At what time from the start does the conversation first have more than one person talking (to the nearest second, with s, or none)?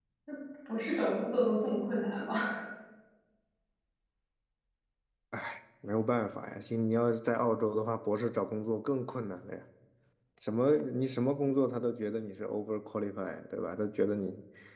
none